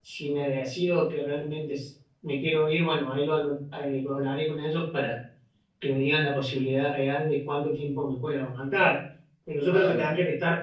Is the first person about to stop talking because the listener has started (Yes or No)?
No